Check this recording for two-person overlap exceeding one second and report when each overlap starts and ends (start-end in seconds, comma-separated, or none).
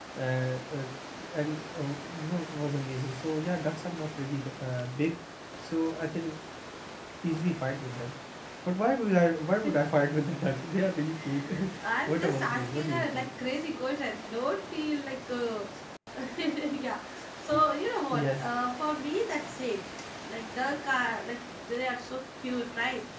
12.1-13.3